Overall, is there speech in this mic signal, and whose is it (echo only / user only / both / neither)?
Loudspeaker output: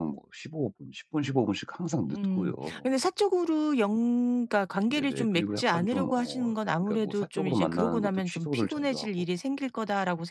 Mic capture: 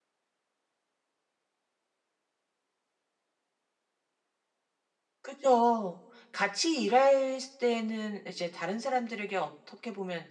user only